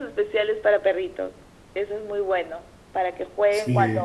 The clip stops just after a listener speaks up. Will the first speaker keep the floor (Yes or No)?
Yes